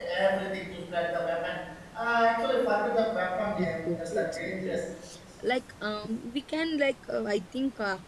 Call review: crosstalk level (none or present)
present